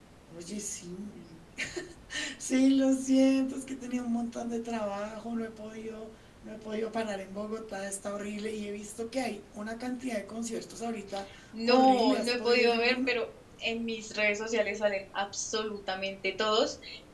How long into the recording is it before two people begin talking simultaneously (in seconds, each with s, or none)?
11.5 s